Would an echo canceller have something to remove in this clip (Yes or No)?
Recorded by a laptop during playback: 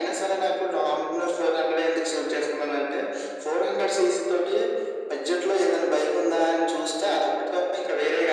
Yes